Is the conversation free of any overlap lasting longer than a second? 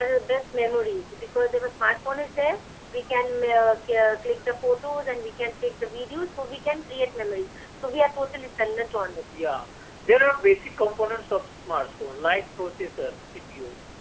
Yes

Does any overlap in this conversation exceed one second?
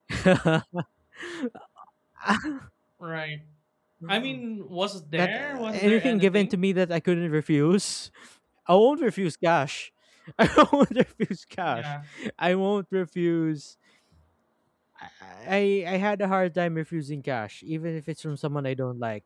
Yes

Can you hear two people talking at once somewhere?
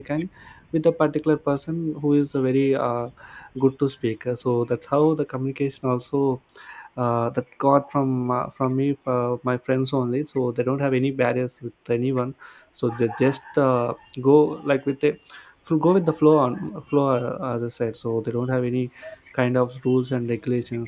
No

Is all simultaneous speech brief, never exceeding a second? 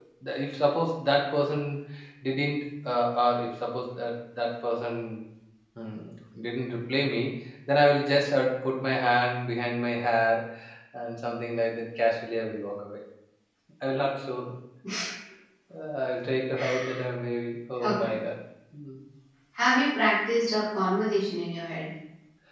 Yes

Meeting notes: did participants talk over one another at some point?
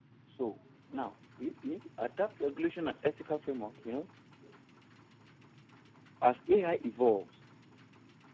No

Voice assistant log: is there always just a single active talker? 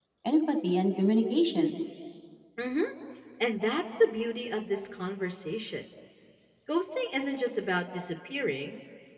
Yes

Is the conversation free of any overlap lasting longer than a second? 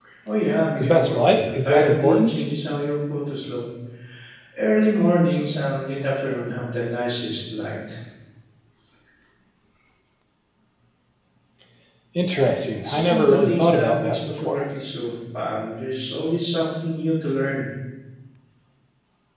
No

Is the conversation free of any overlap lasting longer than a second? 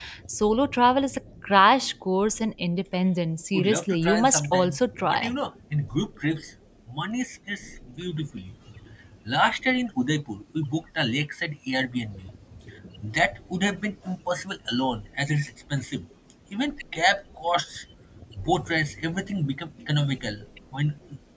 No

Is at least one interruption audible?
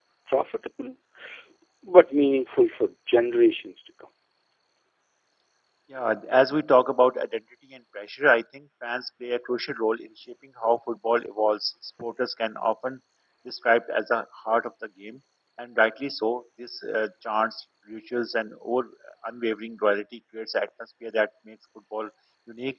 No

